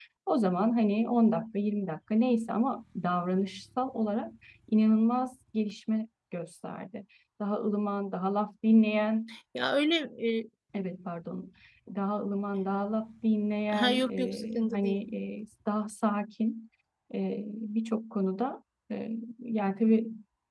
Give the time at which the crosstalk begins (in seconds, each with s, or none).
13.7 s